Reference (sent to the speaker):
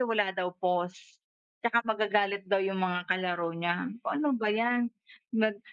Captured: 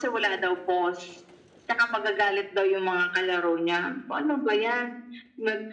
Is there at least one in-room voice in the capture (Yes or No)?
No